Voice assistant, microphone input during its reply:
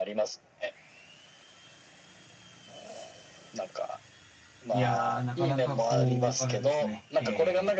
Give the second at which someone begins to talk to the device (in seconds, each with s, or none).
4.7 s